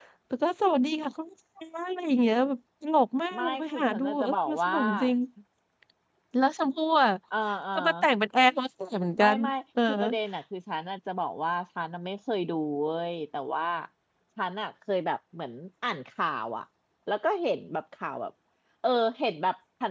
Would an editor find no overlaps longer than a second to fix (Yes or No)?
No